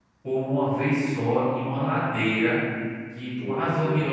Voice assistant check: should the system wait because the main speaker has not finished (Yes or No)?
Yes